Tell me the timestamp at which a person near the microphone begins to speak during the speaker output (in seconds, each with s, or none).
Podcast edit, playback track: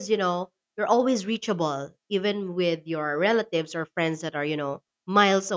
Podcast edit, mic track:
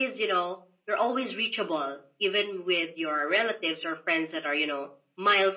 none